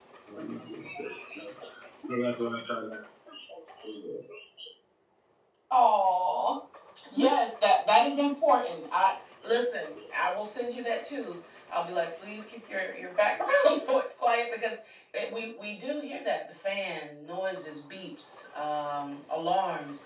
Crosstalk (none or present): none